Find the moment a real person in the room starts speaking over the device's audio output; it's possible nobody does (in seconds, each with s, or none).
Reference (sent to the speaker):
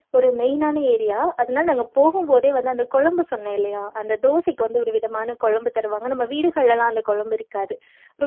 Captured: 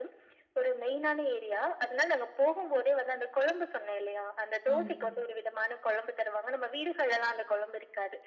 4.8 s